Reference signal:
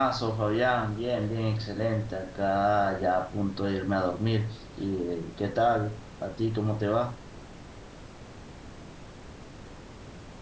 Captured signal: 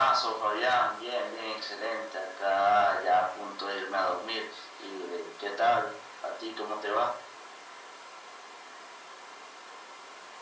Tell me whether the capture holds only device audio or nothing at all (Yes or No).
Yes